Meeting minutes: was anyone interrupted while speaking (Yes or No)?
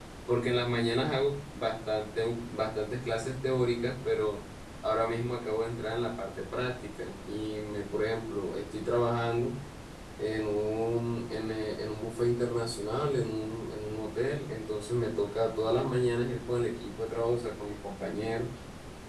No